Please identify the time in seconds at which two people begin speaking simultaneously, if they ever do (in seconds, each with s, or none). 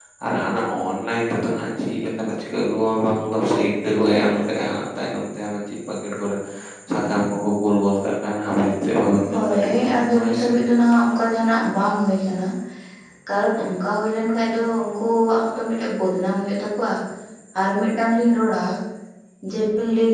9.2 s